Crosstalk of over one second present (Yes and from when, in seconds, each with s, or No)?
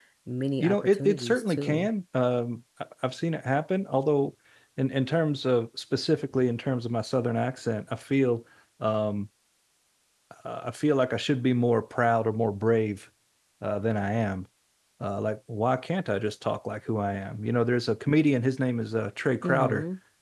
Yes, from 0.6 s